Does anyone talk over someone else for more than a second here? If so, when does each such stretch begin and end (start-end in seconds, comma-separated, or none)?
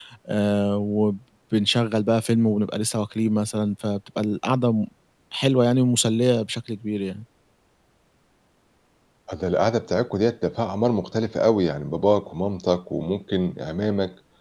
none